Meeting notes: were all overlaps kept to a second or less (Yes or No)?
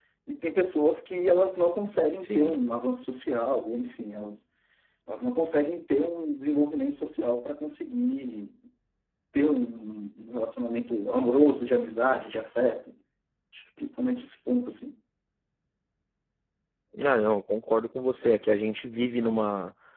Yes